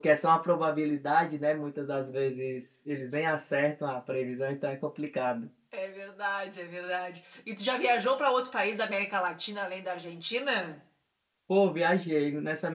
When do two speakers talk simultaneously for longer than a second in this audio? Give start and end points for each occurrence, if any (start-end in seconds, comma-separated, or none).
none